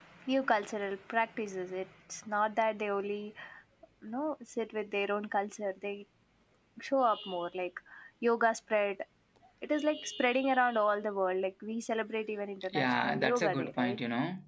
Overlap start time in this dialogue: 12.7 s

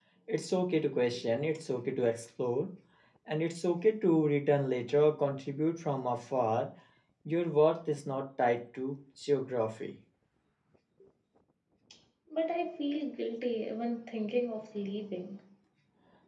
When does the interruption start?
none

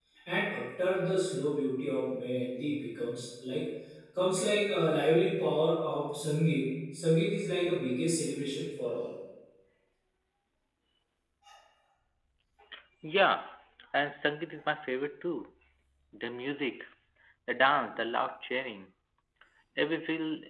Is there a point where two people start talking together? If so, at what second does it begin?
none

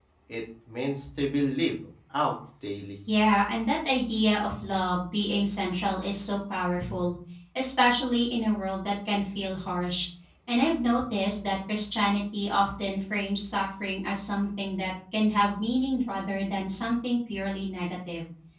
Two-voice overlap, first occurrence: none

